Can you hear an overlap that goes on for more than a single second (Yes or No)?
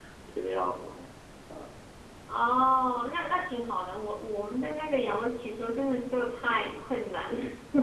No